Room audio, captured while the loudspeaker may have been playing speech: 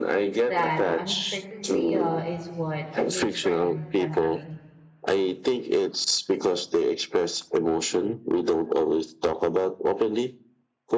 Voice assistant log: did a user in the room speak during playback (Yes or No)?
Yes